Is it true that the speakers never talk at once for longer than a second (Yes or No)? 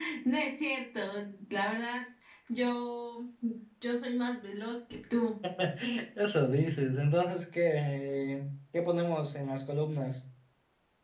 Yes